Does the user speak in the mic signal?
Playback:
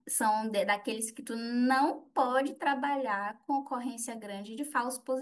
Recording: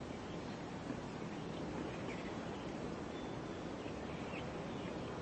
No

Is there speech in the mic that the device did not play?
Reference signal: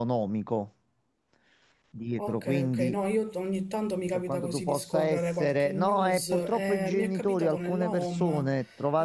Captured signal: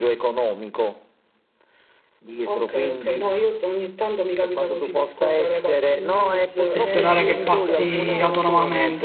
Yes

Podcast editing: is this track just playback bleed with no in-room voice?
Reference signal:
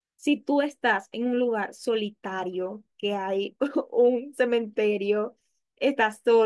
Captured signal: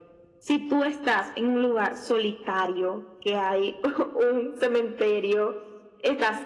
Yes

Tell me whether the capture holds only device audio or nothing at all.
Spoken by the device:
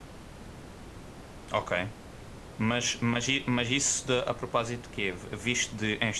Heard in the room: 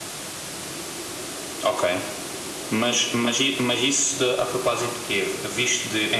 Yes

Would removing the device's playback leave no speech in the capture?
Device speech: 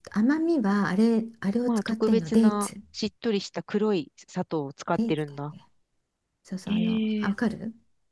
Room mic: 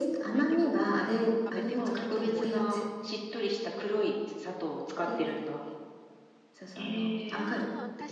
No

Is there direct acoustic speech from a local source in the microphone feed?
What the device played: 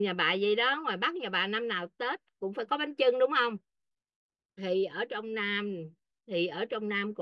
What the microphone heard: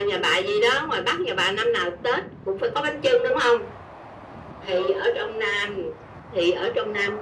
No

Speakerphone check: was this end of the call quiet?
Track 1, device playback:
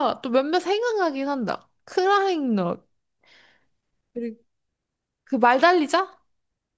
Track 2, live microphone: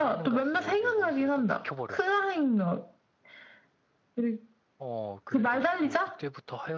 No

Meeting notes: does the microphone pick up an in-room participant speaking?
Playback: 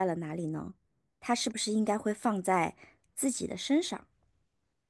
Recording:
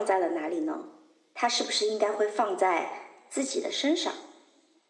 No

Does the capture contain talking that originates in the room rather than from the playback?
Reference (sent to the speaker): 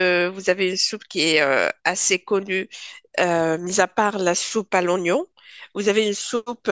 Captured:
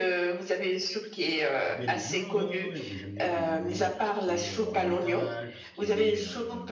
Yes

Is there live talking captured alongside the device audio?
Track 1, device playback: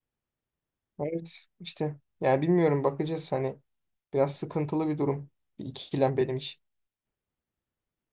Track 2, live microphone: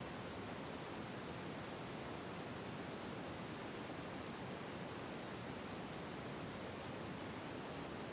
No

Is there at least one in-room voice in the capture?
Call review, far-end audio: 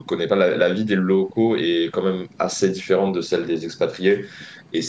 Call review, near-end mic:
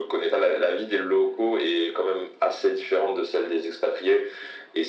No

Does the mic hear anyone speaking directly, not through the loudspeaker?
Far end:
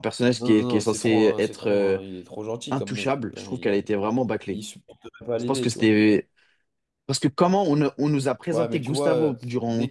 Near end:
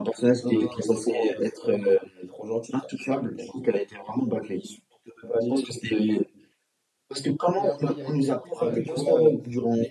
Yes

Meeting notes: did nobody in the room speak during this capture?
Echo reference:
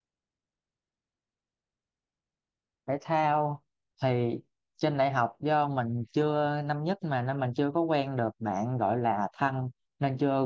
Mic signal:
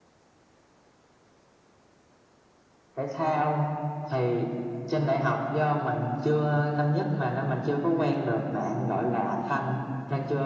Yes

